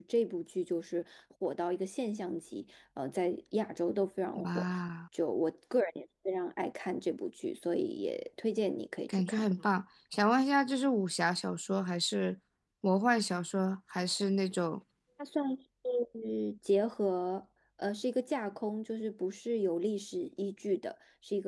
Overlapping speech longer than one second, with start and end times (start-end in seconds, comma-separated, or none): none